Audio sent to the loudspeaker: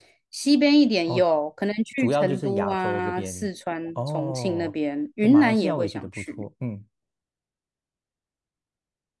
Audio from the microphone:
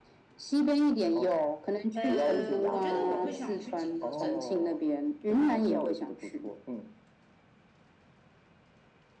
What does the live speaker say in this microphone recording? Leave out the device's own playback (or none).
呃，我觉得我会想去景德镇。